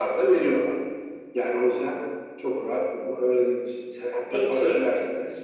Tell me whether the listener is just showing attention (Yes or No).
Yes